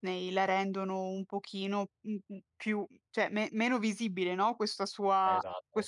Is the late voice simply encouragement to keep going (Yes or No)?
Yes